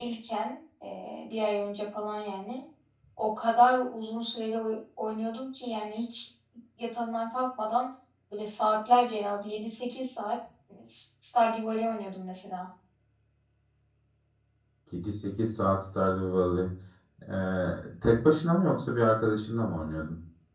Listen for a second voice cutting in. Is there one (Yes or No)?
No